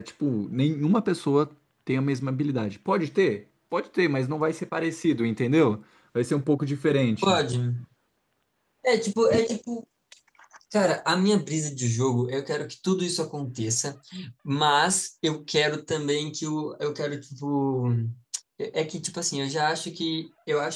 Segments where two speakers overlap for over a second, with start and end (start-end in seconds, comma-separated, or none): none